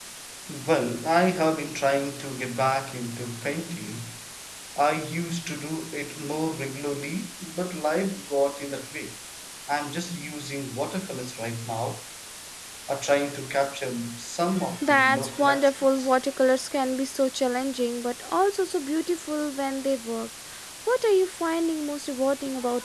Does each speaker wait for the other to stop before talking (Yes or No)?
No